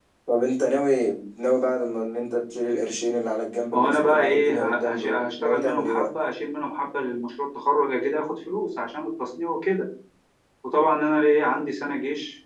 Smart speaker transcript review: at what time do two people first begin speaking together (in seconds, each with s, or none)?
3.7 s